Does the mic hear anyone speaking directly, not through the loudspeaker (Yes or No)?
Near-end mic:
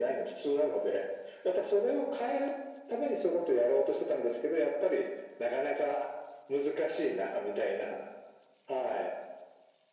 No